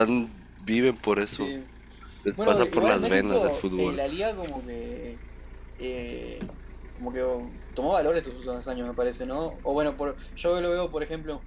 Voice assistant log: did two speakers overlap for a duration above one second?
Yes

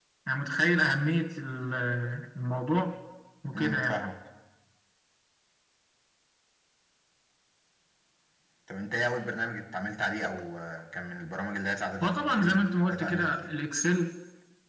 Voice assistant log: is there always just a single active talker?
No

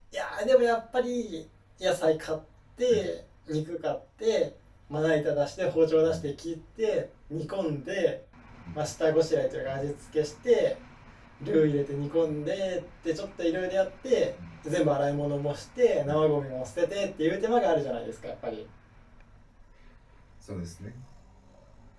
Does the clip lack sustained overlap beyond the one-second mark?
Yes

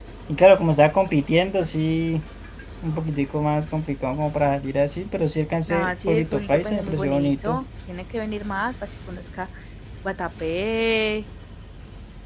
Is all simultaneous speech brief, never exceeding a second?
No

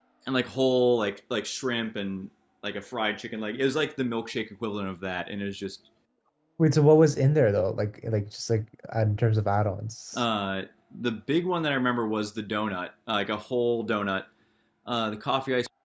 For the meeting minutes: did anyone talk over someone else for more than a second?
No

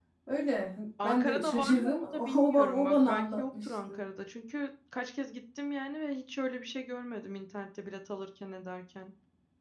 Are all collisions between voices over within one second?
No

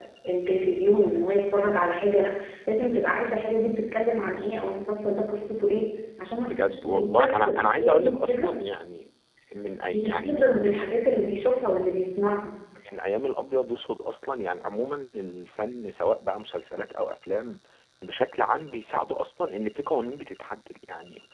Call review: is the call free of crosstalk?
No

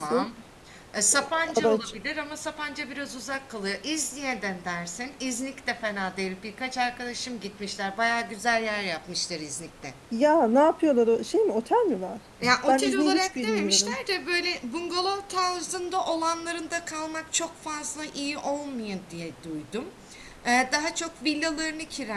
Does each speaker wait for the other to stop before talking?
No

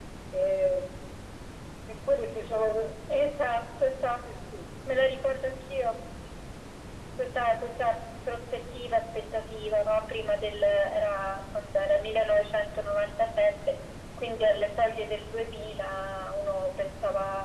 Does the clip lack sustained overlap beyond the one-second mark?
Yes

